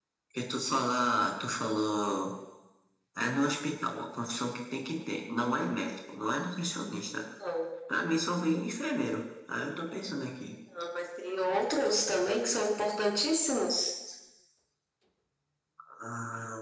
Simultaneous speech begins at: none

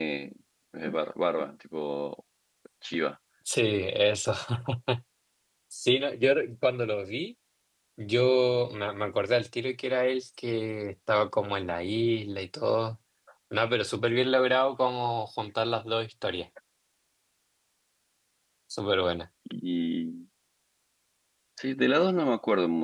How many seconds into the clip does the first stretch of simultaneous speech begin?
none

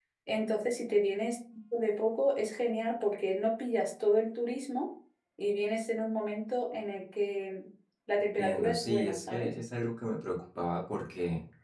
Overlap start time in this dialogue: 8.2 s

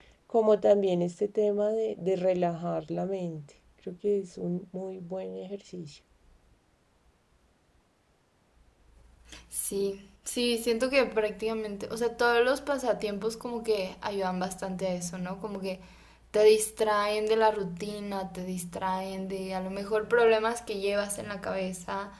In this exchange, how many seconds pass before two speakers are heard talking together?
none

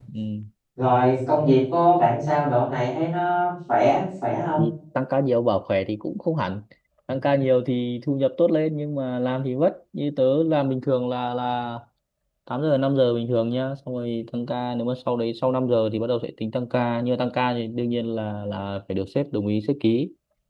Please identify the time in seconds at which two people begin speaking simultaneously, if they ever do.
none

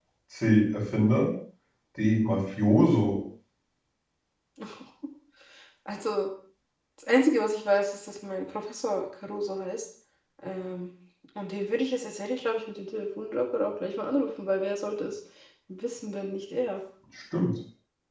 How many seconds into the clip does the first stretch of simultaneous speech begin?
none

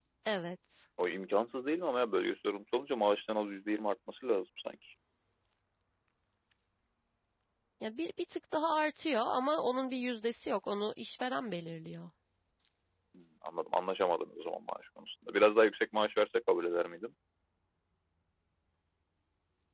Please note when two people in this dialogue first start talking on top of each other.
none

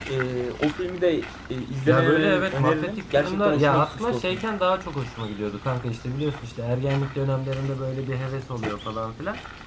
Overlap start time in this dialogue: 1.9 s

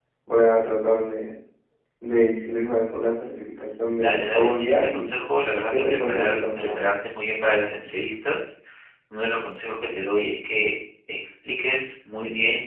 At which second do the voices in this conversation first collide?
4.0 s

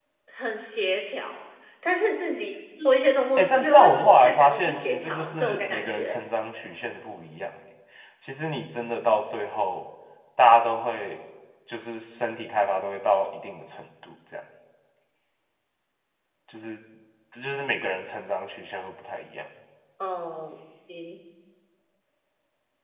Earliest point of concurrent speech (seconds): 3.4 s

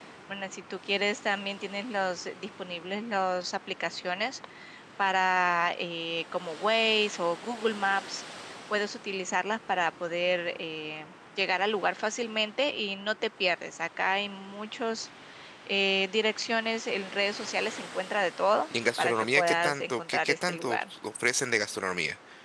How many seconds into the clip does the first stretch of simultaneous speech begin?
19.0 s

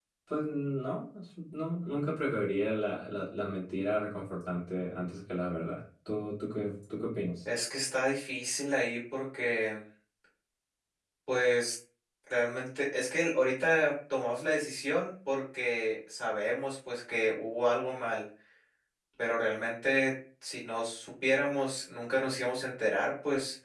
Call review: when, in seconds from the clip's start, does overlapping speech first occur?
none

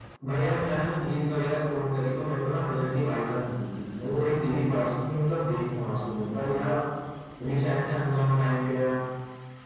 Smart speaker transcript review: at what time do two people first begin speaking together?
none

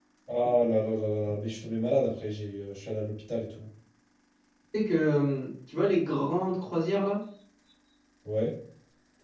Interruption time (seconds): none

